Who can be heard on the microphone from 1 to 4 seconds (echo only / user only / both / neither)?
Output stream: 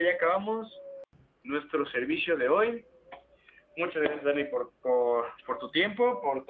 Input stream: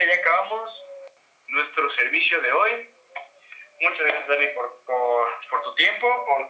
echo only